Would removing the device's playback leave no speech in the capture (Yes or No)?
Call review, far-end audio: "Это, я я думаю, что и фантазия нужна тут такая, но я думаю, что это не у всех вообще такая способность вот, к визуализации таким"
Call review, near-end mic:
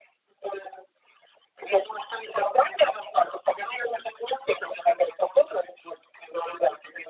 Yes